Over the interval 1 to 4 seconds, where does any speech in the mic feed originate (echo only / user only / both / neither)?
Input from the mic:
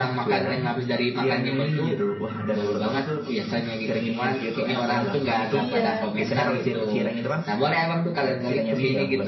echo only